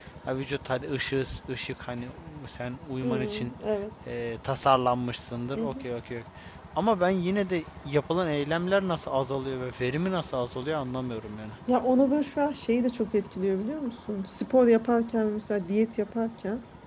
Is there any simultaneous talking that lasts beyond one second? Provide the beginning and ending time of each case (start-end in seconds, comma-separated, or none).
none